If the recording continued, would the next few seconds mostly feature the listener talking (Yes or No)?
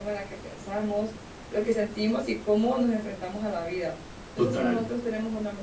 No